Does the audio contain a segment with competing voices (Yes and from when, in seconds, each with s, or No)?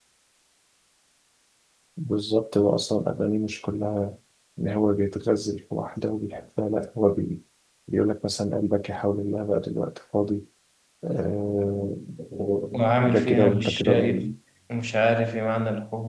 Yes, from 13.0 s